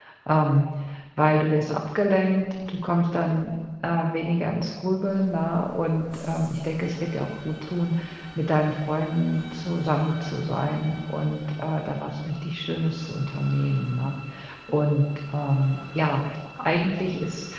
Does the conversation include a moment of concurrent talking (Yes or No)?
No